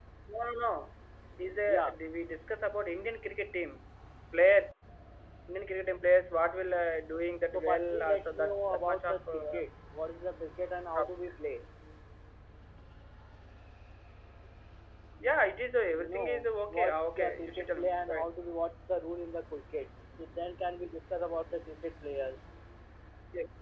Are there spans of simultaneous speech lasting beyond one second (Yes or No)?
Yes